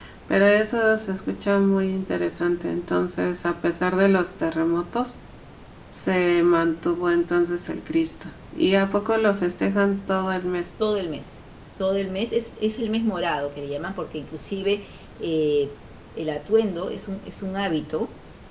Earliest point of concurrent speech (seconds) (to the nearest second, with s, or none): none